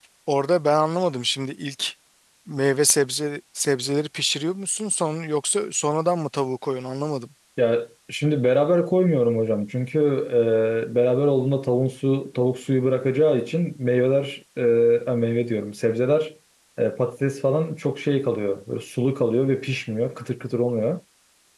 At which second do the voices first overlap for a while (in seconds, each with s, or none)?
none